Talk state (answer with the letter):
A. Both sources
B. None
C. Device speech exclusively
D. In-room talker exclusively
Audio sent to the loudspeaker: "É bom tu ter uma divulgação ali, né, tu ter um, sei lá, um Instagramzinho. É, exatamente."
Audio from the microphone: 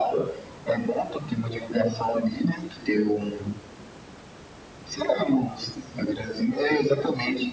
C